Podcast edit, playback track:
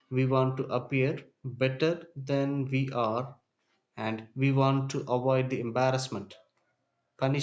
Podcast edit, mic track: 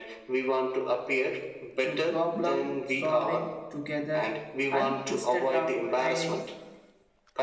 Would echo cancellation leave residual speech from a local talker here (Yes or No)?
Yes